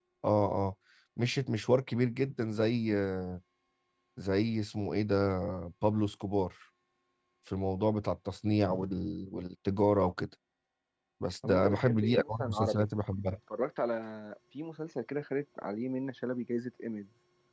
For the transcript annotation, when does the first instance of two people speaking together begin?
11 s

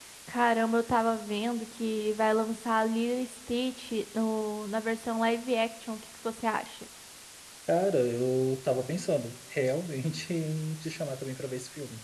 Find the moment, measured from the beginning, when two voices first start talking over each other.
none

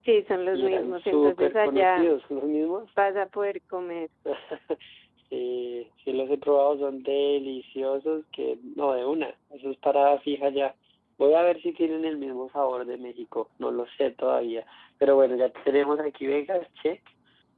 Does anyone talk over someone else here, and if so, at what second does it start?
1 s

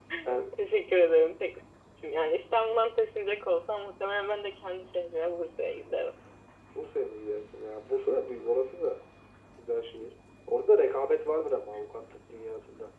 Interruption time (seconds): none

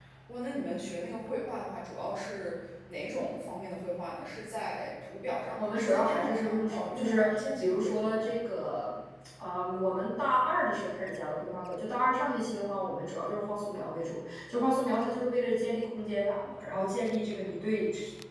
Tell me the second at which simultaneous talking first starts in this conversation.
5 s

